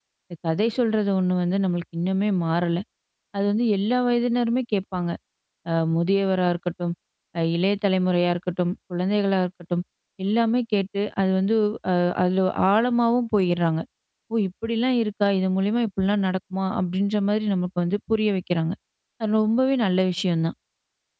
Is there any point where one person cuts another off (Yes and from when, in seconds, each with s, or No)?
No